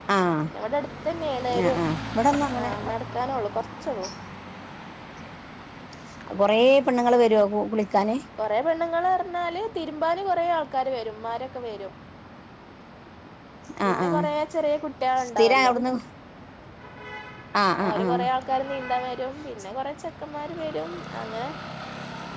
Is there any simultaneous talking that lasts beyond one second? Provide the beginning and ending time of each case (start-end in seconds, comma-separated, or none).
none